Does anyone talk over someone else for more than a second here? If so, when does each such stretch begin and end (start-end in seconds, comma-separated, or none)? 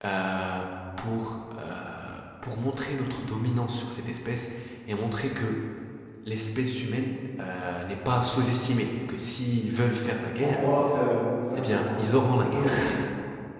none